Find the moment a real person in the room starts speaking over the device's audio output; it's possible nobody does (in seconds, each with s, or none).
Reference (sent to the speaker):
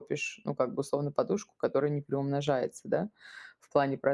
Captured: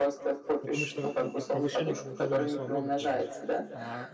0.6 s